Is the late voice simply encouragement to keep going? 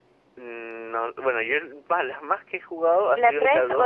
No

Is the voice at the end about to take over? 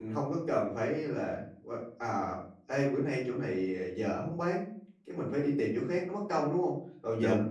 No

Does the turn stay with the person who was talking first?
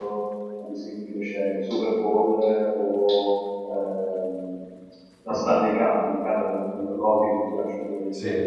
Yes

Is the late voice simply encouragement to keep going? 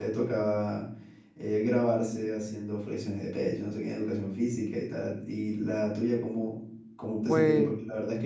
Yes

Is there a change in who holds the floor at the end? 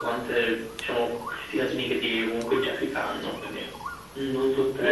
Yes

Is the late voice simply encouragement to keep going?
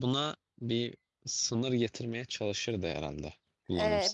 No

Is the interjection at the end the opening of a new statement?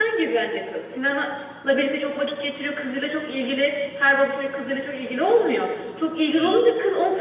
No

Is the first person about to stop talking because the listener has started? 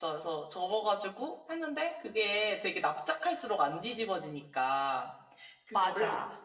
No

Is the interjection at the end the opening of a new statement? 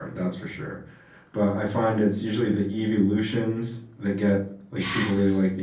No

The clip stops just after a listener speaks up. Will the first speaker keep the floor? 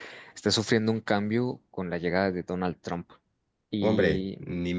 No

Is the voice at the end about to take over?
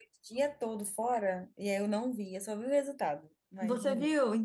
Yes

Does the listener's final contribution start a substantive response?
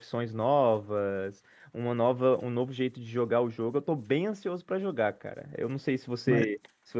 No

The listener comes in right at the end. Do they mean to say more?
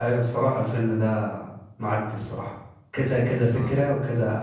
No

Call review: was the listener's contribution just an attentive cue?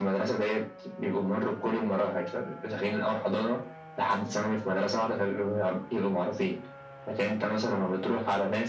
Yes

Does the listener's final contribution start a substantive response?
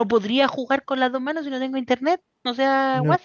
Yes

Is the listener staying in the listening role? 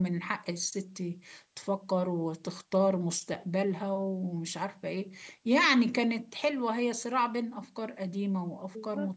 No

